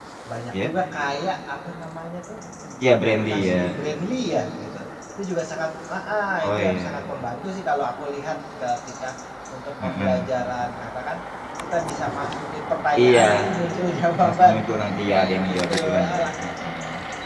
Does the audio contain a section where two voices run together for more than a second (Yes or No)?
Yes